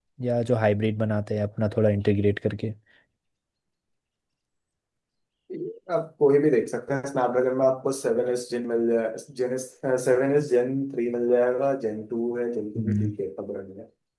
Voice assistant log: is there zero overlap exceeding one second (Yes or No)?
Yes